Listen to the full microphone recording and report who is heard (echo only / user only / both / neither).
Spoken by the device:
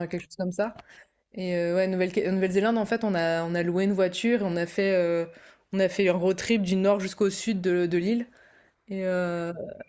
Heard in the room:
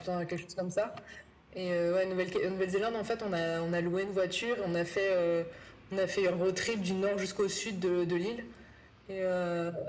echo only